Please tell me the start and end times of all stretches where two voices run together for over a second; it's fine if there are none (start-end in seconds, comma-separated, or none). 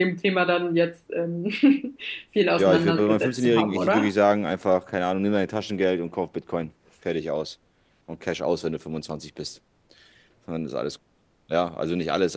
2.6-4.1